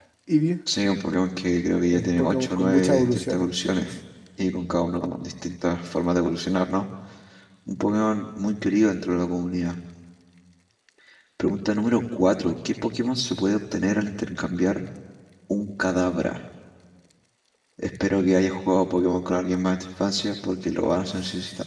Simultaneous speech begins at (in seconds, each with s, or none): 1.9 s